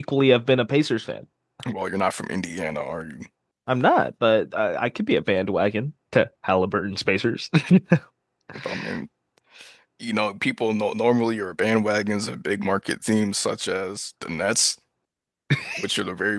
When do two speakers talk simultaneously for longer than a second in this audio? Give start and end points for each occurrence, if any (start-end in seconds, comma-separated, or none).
none